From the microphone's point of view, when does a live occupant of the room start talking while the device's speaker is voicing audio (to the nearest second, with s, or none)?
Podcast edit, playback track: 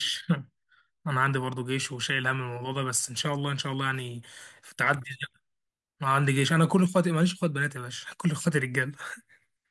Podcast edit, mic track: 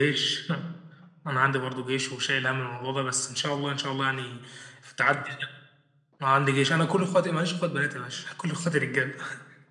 none